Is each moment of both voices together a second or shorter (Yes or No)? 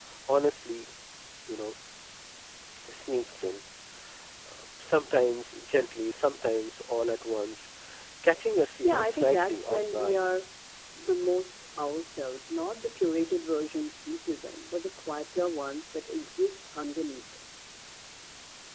No